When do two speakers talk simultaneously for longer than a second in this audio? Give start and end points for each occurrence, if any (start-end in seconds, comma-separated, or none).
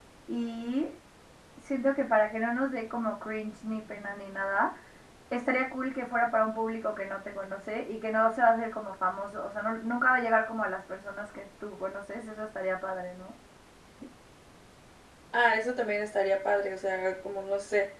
none